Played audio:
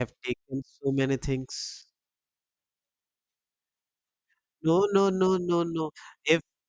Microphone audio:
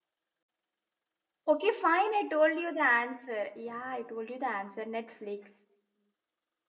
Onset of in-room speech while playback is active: 1.4 s

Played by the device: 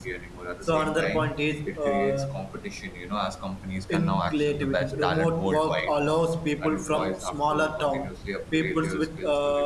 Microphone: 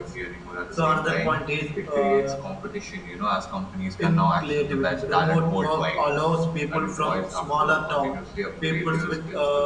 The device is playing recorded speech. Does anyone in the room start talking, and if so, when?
none

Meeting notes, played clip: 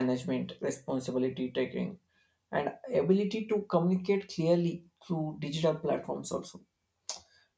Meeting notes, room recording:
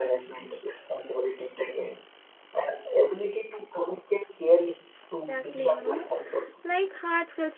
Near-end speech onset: 5.2 s

